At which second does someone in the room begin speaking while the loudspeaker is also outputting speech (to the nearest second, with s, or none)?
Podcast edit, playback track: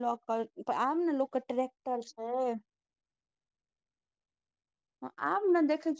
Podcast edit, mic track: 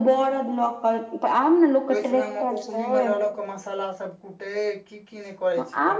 2 s